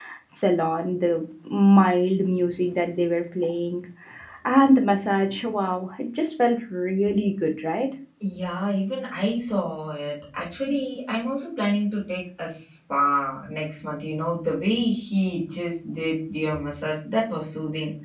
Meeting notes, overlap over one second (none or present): none